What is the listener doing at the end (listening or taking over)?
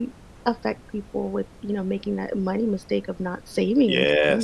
taking over